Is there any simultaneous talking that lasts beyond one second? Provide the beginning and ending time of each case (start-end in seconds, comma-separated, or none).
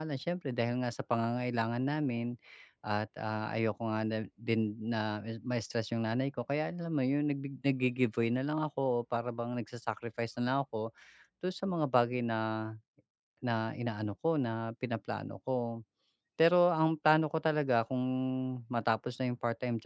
none